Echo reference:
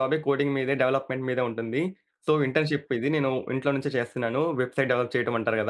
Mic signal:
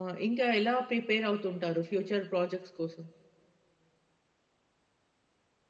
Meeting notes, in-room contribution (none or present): present